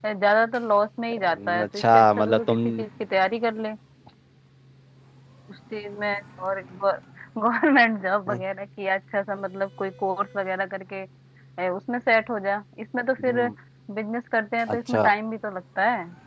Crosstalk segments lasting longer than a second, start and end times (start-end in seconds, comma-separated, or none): 1.2-2.6